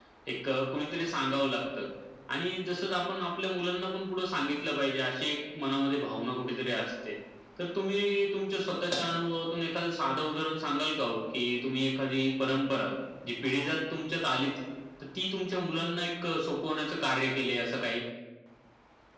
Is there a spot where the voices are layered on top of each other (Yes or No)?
No